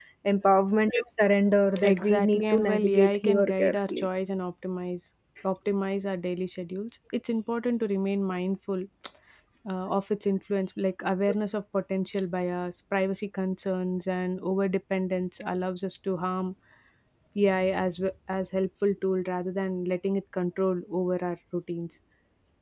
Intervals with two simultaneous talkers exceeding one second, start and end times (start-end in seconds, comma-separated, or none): 1.8-4.1